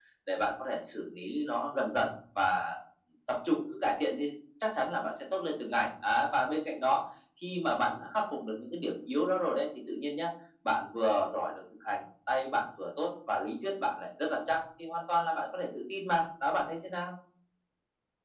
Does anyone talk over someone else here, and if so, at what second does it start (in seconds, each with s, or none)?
none